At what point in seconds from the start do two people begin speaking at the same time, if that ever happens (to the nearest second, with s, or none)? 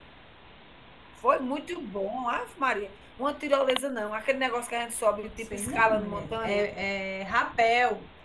5 s